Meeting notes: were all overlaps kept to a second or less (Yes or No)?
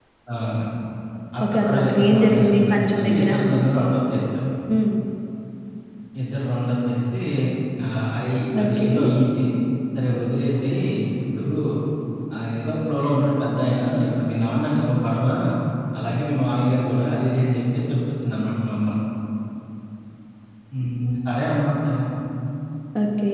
No